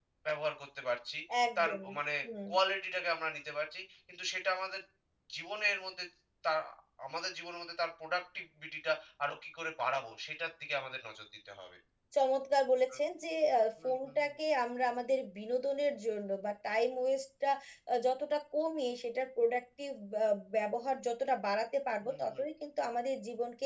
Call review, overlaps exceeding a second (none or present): none